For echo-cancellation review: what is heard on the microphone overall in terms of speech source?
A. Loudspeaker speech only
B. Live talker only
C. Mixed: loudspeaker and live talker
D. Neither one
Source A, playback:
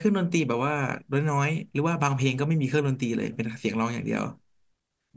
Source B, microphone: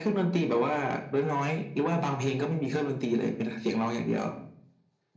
A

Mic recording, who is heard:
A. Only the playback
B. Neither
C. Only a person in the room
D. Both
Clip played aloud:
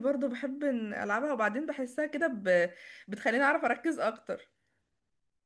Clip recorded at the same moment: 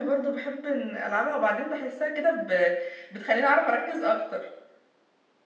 A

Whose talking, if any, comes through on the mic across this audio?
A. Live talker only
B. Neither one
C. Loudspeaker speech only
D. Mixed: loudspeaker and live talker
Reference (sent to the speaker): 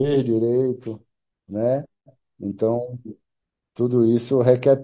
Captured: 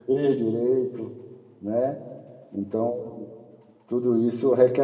C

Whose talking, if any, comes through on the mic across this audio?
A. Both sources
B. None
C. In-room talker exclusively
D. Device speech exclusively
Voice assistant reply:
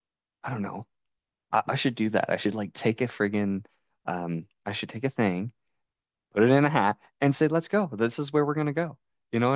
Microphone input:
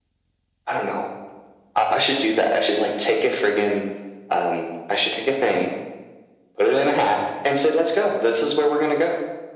D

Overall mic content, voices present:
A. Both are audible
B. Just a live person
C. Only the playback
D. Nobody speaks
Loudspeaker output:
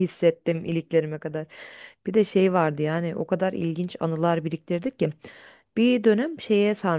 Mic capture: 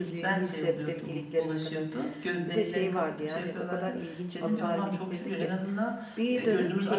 A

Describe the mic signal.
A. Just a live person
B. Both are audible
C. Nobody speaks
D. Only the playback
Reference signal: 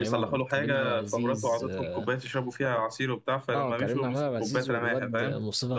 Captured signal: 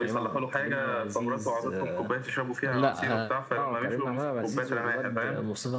B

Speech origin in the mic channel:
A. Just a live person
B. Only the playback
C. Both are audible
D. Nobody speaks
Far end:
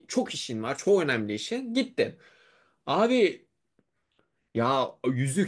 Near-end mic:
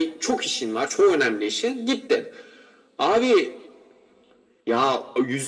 B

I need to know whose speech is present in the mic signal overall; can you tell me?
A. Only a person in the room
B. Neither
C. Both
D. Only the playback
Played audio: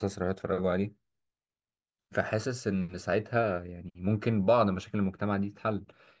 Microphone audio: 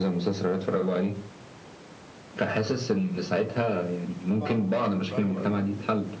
C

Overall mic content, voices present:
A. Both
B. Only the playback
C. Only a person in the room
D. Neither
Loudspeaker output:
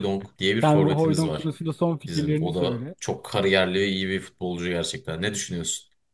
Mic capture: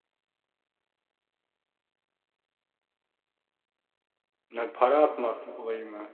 C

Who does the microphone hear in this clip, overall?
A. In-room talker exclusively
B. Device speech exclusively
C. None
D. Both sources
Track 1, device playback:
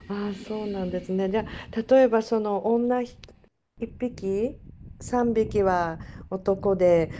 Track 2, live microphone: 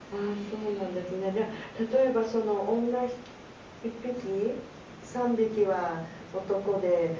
B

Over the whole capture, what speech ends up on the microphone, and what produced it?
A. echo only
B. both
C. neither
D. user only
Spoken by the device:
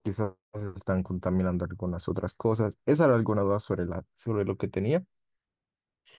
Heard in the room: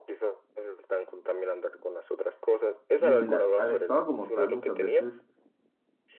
B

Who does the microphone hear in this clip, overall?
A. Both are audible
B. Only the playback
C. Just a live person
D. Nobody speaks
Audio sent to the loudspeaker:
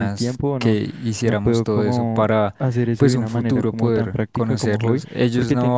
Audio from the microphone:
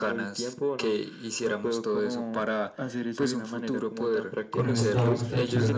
A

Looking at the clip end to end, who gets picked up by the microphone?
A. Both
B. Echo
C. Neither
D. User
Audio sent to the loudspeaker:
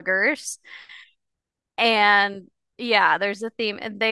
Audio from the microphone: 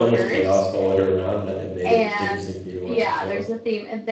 A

